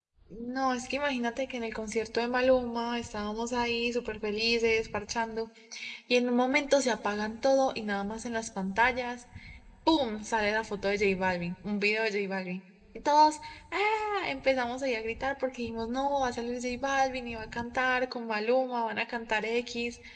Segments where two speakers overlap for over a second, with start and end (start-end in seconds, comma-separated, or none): none